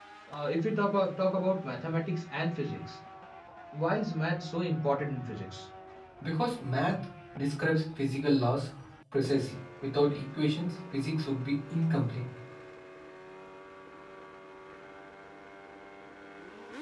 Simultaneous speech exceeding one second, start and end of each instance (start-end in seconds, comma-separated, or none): none